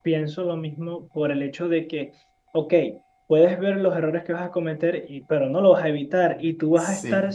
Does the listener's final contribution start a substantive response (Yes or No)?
No